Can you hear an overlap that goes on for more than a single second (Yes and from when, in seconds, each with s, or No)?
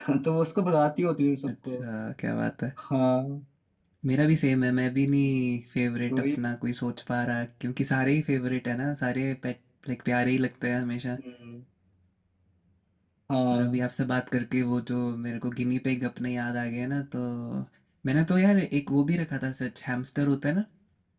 No